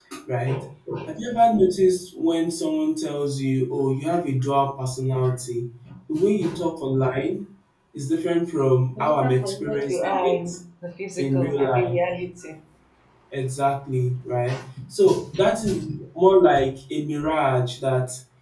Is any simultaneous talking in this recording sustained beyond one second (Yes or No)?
Yes